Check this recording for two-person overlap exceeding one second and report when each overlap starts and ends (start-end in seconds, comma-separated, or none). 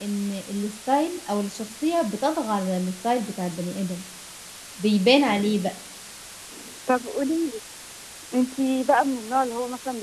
none